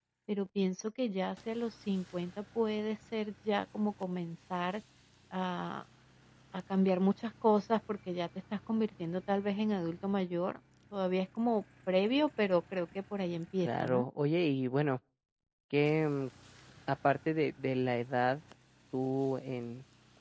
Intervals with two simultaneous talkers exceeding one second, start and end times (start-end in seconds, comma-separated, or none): none